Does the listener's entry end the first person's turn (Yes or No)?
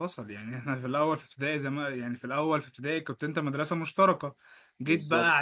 No